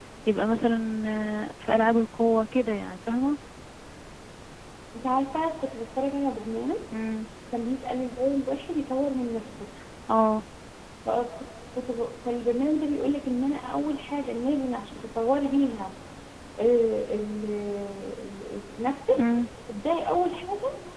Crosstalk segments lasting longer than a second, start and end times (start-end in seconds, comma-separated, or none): none